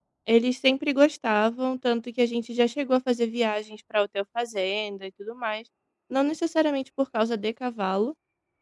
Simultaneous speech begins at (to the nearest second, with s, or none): none